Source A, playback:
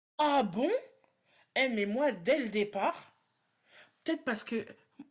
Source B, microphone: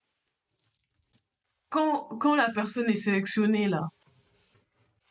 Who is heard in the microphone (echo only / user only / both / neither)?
user only